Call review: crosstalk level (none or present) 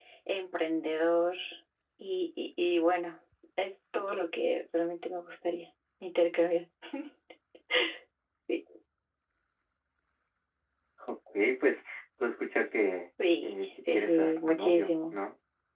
present